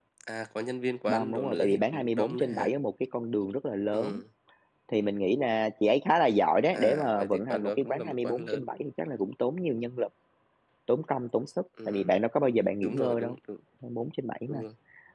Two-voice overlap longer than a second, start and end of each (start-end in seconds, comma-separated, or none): 1.1-2.7, 6.7-8.6